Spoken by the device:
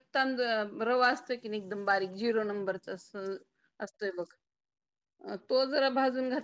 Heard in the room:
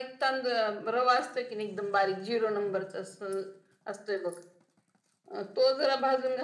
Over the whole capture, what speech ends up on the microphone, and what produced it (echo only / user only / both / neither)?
echo only